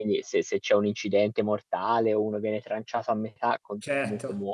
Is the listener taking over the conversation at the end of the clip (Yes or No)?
No